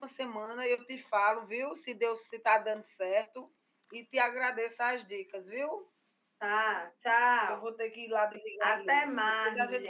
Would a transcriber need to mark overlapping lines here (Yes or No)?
Yes